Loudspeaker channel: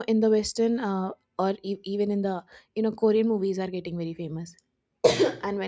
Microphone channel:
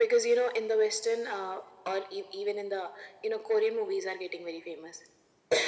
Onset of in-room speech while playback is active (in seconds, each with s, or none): none